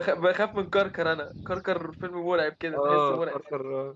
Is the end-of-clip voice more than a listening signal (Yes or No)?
Yes